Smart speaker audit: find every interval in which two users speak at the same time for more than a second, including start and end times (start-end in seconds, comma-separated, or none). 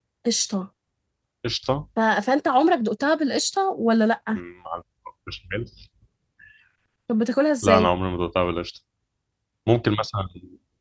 none